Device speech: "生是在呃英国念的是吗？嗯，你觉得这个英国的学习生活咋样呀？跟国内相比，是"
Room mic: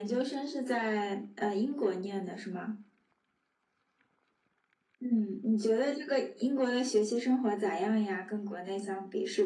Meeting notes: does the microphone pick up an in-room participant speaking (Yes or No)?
No